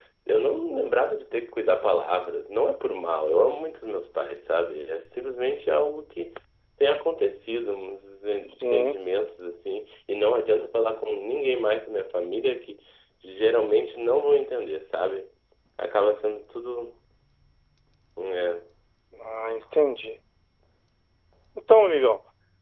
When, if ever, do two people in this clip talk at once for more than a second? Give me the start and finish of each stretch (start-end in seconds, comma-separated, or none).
none